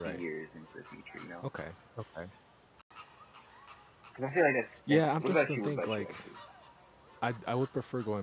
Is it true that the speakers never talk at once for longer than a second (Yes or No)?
No